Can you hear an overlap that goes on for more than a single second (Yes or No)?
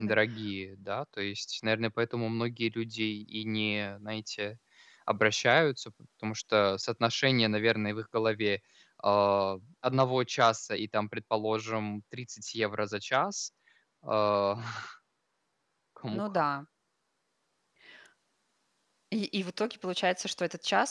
No